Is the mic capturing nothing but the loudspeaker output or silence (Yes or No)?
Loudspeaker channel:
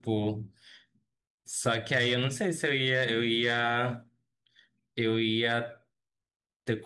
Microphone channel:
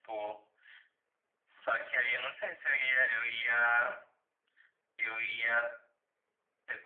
Yes